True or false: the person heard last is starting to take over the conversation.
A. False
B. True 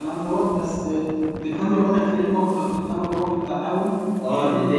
B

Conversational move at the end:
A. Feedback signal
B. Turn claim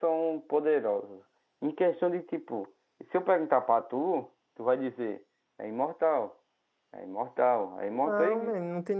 B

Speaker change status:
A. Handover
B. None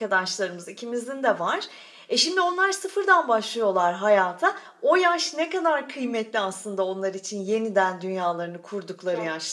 A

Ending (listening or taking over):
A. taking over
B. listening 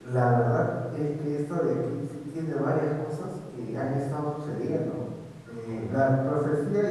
B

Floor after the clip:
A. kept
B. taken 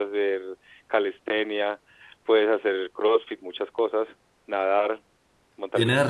B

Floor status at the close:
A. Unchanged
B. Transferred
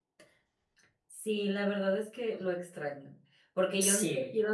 A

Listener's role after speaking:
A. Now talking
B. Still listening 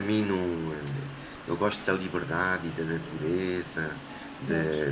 B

